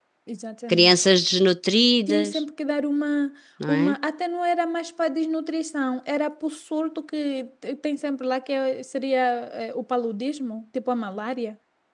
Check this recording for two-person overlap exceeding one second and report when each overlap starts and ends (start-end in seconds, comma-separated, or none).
none